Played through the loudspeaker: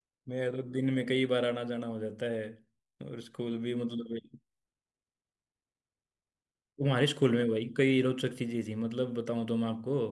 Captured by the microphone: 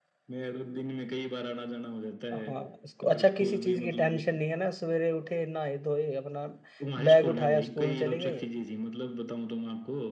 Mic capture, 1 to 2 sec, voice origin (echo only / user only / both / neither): echo only